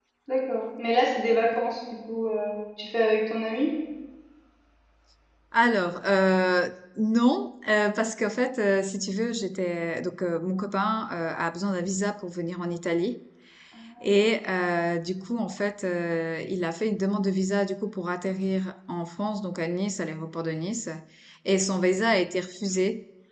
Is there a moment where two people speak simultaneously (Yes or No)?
No